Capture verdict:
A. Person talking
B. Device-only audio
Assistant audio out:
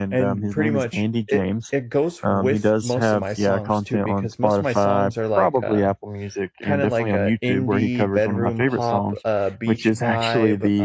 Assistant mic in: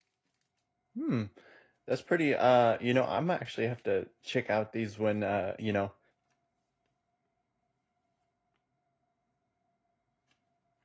A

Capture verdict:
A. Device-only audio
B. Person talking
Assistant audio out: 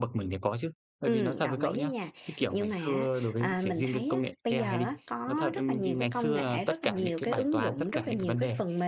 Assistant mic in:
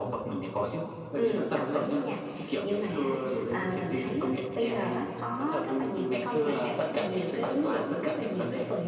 A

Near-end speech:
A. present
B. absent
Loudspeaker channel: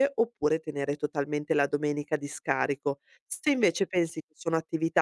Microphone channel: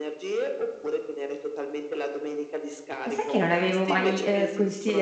A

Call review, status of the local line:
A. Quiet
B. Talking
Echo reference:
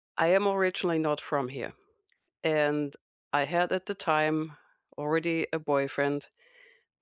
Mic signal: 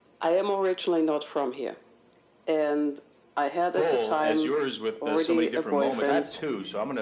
B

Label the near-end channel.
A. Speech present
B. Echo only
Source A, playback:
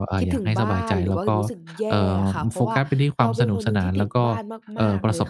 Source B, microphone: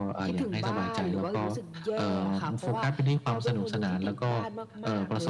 B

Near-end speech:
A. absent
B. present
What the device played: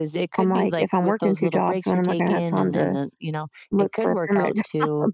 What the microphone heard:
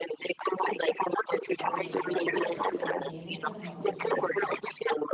B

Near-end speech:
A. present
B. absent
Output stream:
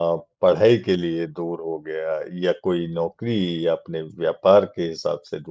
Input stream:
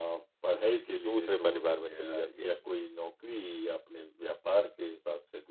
A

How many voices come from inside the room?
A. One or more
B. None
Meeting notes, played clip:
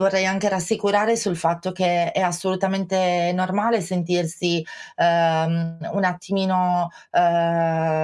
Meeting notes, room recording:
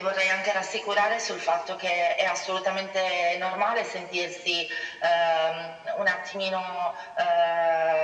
B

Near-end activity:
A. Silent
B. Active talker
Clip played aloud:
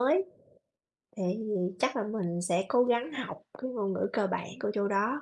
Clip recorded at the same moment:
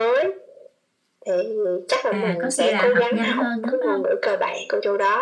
B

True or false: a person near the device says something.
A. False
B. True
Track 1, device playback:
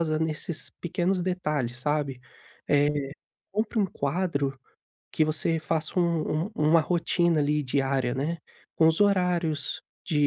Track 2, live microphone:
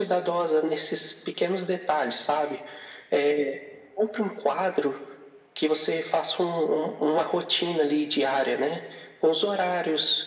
A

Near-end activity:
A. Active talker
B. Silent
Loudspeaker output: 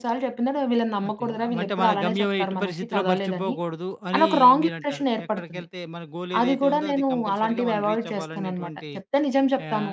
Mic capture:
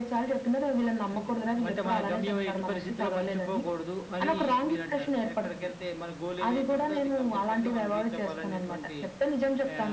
B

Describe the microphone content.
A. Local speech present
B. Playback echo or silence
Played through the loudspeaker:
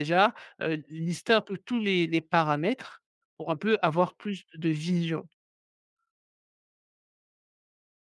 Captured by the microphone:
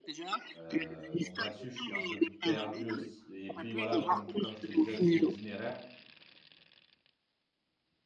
A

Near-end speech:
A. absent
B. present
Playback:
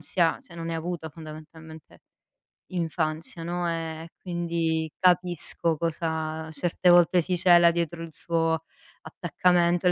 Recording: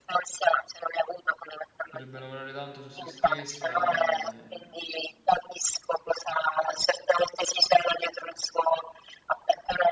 B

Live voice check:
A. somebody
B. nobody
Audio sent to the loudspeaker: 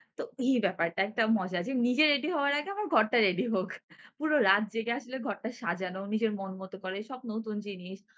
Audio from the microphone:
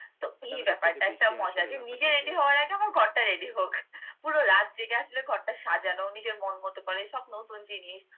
A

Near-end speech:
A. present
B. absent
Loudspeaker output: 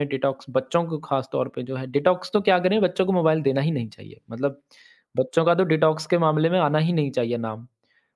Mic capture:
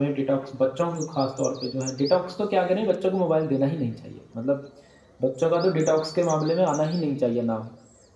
B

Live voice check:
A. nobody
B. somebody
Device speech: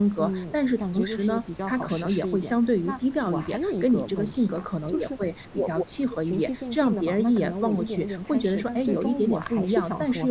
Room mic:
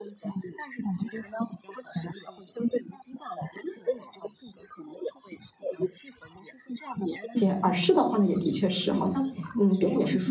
B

